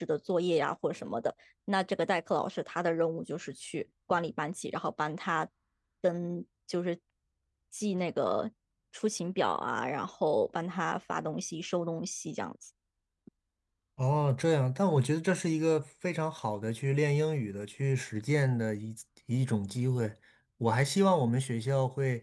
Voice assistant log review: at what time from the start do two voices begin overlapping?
none

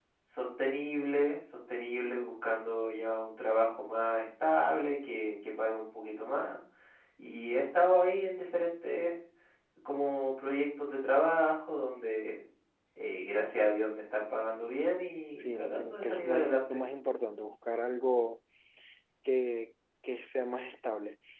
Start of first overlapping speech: 15.4 s

